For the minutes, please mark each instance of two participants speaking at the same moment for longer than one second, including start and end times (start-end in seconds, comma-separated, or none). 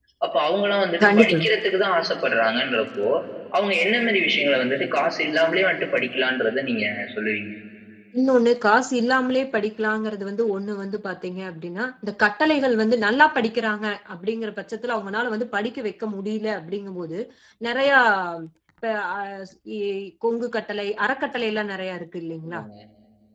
none